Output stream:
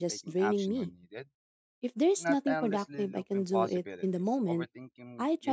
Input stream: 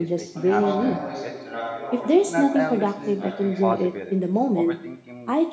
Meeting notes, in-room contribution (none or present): present